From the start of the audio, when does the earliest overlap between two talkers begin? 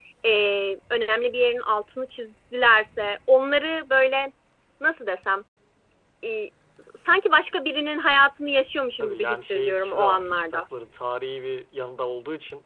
9 s

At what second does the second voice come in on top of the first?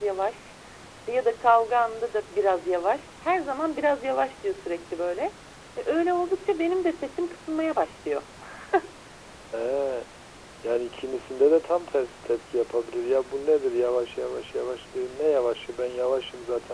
none

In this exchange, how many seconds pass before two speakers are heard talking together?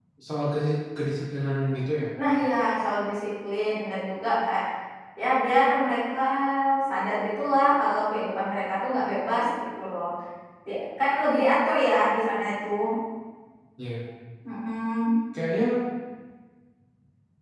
none

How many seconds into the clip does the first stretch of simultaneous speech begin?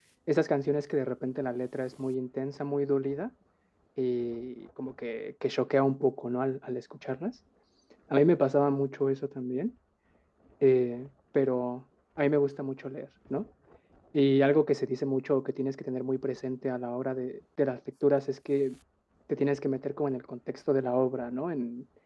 none

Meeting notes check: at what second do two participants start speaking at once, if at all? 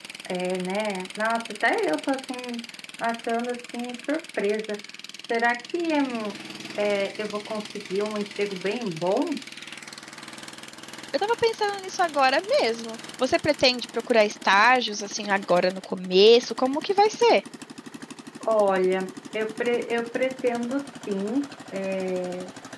none

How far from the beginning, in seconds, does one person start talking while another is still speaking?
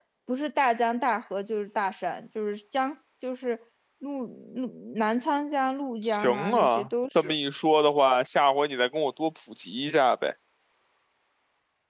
6 s

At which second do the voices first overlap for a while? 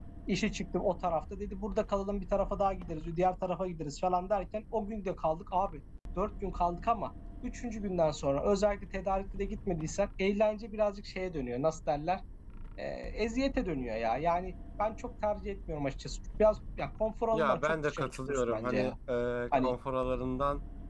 17 s

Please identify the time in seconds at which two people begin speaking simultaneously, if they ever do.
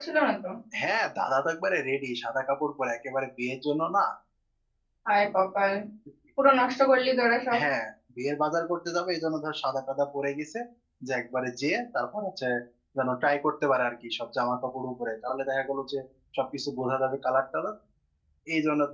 none

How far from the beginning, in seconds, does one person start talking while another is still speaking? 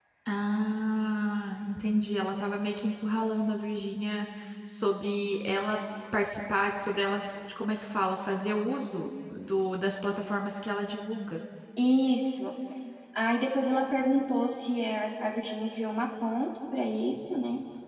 none

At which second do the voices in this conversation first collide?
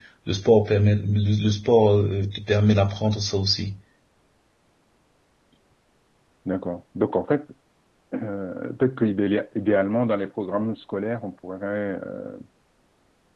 none

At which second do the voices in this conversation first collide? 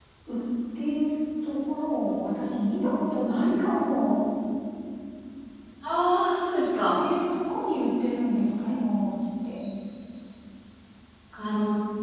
none

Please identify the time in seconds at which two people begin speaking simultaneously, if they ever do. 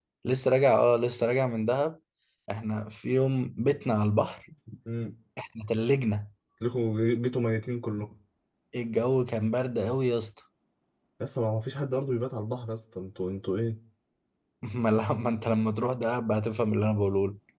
none

